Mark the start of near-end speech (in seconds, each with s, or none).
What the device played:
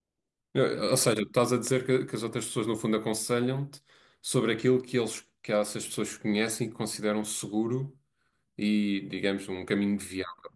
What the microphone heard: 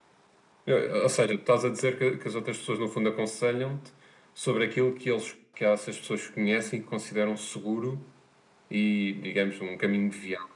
none